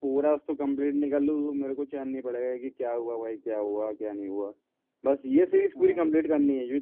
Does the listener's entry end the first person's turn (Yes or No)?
No